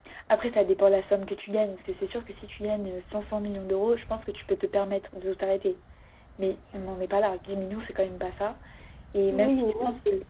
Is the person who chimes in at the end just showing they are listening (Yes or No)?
No